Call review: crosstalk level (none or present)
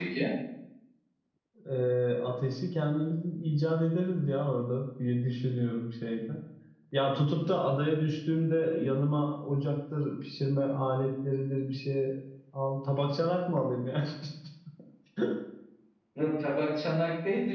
none